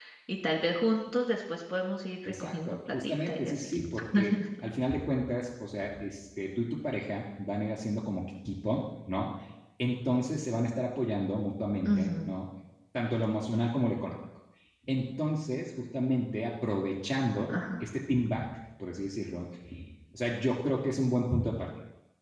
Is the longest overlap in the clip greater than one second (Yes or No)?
Yes